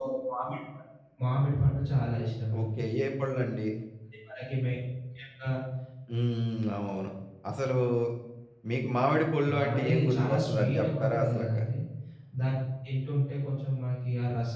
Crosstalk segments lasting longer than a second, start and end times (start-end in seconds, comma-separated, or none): 9.5-11.5